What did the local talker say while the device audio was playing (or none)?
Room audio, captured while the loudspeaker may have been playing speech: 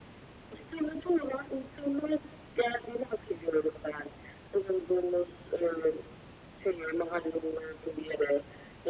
none